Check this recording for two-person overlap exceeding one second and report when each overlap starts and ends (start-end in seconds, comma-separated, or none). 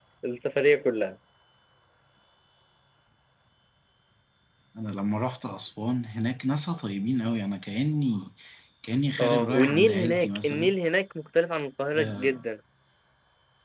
9.2-10.7